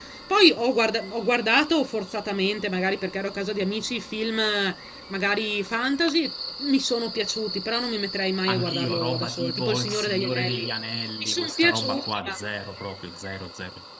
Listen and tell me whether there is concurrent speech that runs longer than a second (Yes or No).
Yes